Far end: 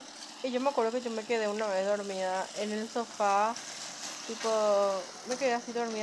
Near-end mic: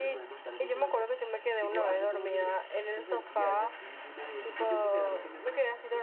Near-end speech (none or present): present